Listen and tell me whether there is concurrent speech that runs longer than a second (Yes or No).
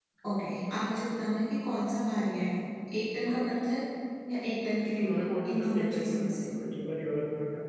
Yes